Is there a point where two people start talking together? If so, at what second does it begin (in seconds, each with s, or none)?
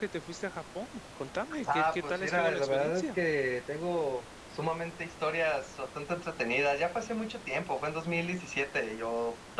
1.7 s